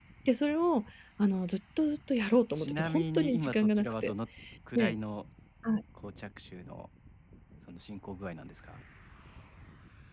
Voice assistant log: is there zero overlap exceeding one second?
No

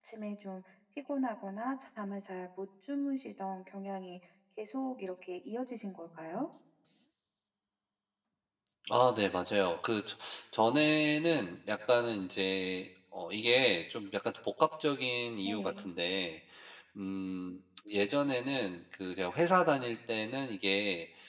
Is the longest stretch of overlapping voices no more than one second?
Yes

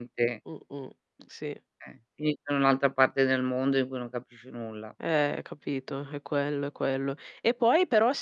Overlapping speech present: No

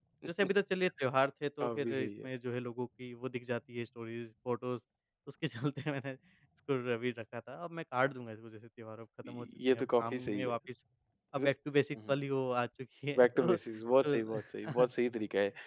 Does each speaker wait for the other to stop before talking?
No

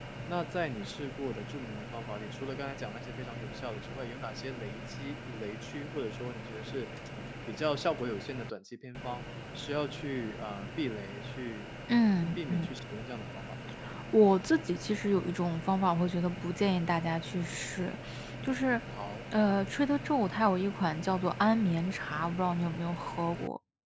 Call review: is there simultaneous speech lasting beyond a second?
No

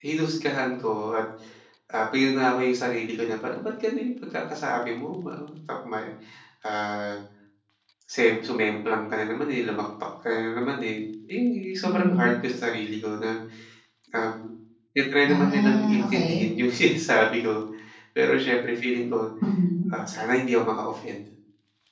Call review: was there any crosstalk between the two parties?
Yes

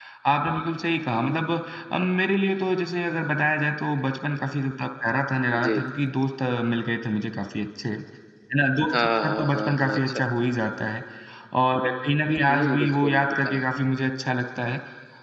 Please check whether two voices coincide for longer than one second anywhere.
Yes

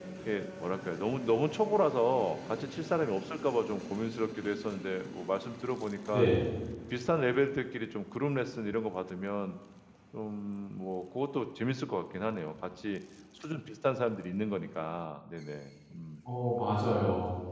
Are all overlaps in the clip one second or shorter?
Yes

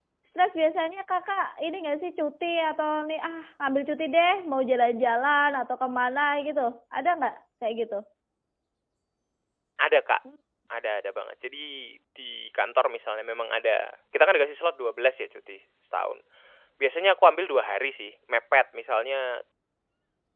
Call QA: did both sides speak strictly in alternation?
Yes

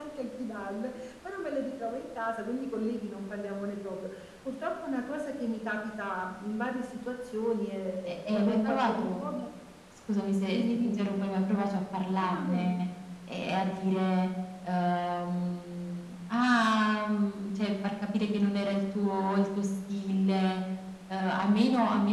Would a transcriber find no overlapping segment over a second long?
No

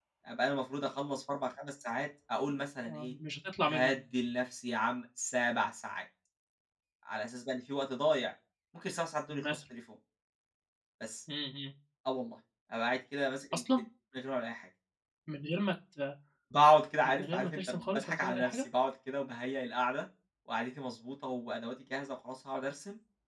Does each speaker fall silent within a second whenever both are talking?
No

